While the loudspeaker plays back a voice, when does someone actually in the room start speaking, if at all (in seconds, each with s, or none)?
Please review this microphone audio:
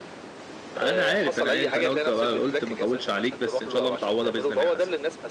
0.8 s